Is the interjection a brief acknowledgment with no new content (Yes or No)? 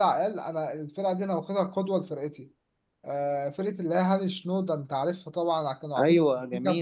Yes